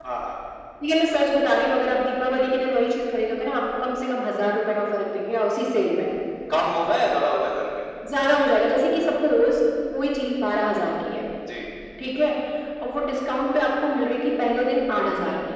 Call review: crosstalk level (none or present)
none